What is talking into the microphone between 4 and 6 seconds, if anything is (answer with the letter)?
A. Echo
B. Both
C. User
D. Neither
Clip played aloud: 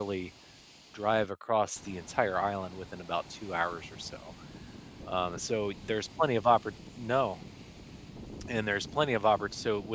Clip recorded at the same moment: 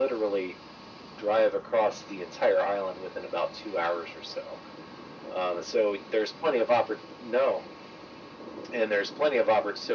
A